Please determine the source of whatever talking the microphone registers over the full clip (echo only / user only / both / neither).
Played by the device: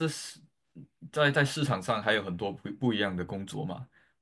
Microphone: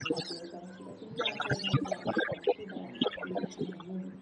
both